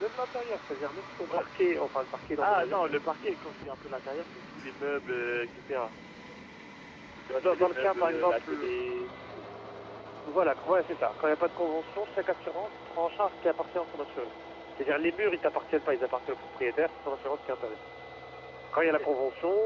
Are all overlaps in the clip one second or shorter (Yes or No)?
No